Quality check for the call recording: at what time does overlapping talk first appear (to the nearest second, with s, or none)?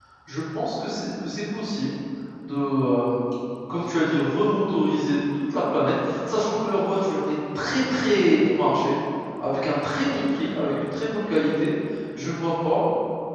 none